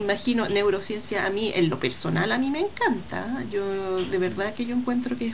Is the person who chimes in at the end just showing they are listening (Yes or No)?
Yes